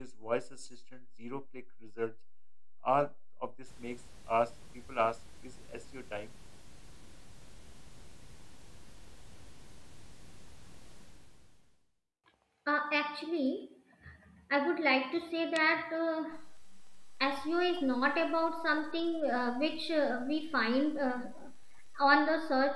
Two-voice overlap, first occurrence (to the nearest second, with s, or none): none